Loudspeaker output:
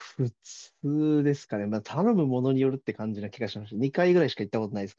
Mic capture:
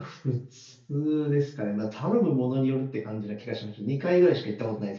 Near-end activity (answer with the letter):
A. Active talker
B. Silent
B